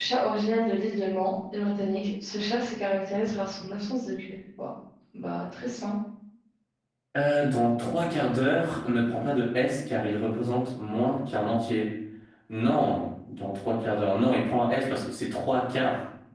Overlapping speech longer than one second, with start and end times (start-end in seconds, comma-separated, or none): none